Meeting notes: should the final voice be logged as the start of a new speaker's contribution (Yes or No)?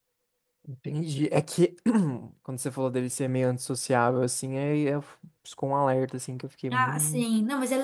Yes